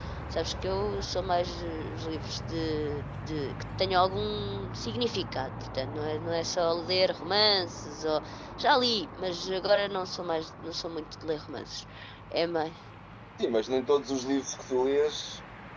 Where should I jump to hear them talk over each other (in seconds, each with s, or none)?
none